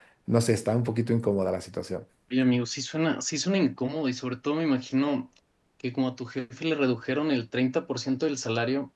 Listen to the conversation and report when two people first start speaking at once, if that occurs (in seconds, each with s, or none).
none